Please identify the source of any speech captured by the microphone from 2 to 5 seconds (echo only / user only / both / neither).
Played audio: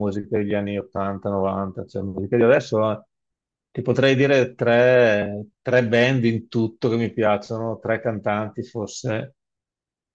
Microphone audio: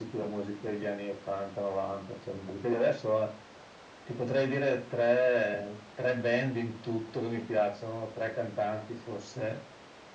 echo only